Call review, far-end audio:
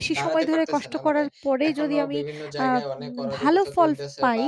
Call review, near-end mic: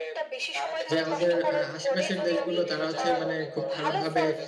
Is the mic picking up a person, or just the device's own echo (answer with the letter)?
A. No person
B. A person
B